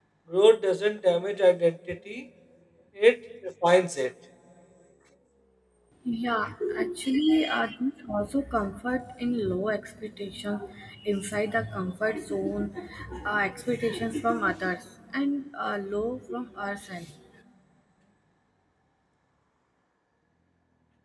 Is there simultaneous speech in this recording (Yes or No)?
No